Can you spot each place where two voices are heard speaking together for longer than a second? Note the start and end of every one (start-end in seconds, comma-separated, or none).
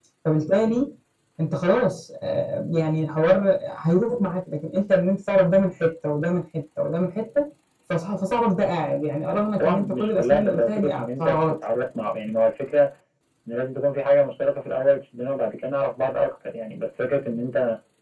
9.6-11.6